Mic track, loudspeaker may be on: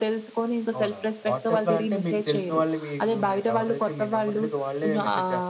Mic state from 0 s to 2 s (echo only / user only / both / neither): both